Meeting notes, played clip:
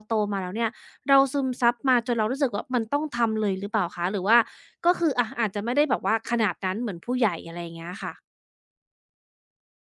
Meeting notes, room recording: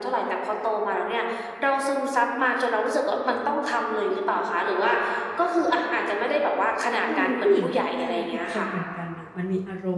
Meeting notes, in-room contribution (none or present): present